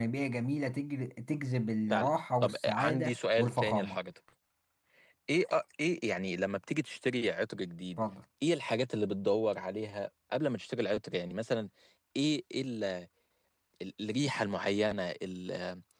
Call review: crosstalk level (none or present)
present